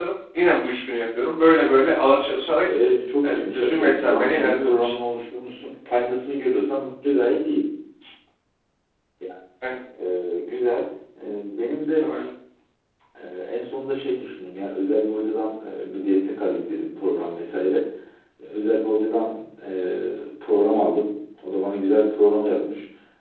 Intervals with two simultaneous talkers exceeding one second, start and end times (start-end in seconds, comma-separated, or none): 3.2-4.9